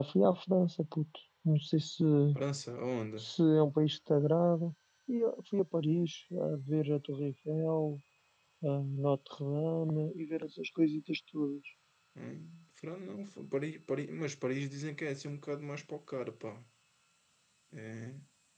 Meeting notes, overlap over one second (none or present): none